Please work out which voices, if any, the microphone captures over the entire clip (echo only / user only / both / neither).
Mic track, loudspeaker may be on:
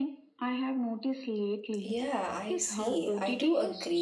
both